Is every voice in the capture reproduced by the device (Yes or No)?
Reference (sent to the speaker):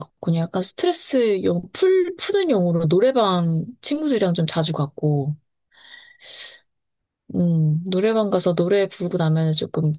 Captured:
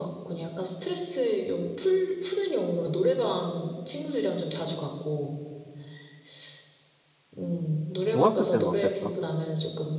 No